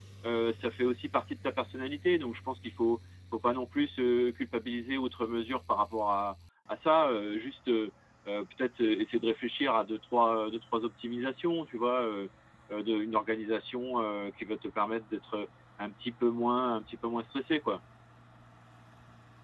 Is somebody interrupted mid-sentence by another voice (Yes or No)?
No